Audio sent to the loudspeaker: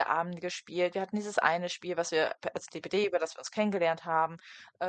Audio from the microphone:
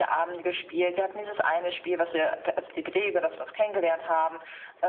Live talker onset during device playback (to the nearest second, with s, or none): none